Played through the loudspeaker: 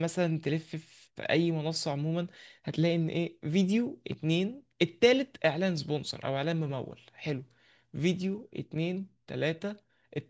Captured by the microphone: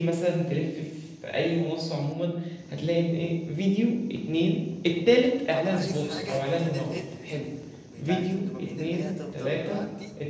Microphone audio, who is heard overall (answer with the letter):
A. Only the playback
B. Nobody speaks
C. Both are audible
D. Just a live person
C